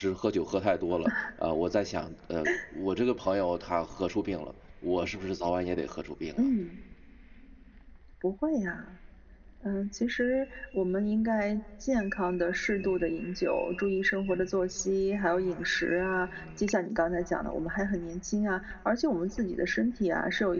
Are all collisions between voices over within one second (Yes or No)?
Yes